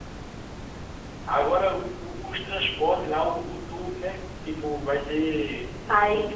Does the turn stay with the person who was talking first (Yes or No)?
No